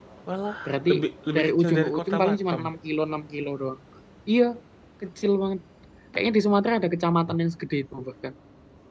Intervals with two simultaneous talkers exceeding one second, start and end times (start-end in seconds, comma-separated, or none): 1.4-2.6